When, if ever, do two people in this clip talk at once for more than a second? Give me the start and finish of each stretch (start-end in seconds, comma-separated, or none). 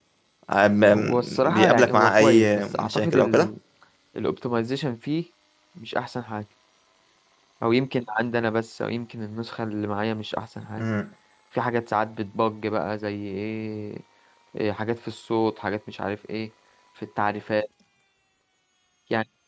1.0-3.5